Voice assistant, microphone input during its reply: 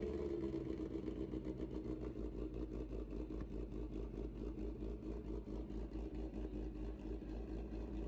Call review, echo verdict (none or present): none